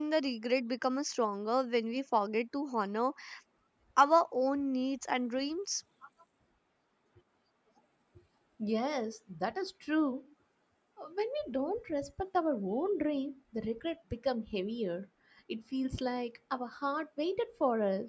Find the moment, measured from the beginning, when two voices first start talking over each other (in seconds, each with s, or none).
none